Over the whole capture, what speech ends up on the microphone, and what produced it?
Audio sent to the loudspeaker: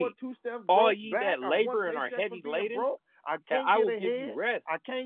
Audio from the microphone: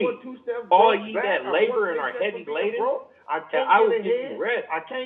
echo only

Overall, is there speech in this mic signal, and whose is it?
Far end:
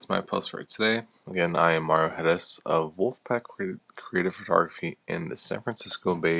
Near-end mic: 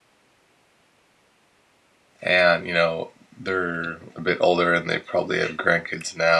user only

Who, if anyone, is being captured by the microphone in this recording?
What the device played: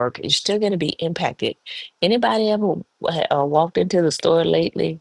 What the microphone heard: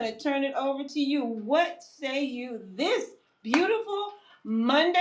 user only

